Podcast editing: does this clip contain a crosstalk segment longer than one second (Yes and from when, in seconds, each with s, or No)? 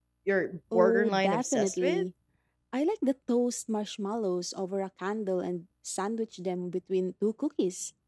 Yes, from 0.7 s